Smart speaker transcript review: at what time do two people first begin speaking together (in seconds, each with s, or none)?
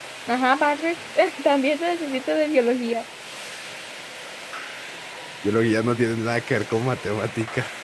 none